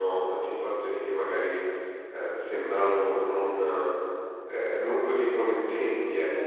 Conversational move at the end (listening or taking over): taking over